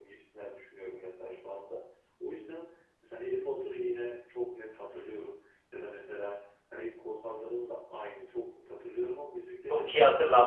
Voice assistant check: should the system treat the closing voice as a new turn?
Yes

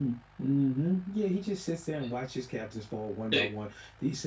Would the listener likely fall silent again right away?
Yes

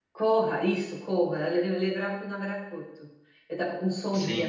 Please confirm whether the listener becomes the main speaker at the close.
Yes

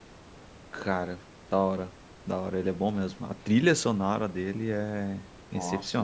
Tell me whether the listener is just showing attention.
No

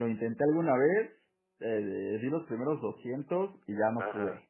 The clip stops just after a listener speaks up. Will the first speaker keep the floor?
No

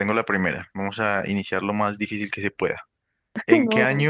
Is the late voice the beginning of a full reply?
No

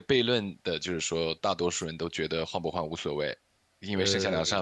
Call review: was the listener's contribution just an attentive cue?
Yes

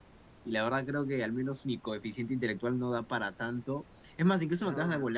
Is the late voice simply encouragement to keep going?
Yes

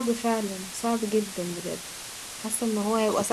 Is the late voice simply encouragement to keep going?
Yes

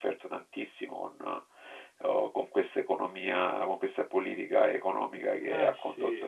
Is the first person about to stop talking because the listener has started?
No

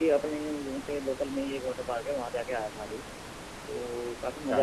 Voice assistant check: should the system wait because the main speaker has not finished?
Yes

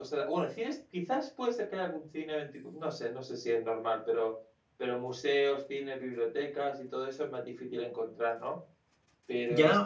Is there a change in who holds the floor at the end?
Yes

